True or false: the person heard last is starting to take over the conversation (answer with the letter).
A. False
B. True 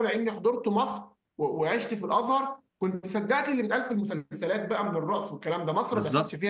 B